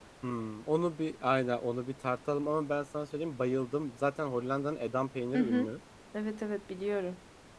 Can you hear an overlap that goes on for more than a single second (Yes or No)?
No